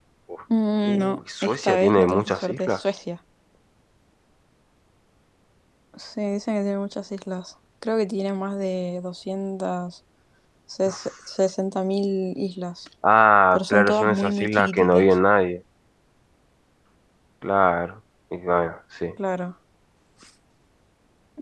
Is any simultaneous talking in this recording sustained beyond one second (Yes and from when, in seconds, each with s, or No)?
Yes, from 0.8 s